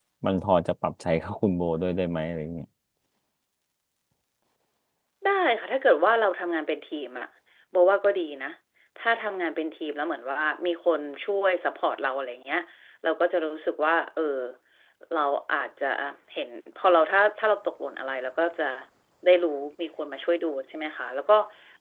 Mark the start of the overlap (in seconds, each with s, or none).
none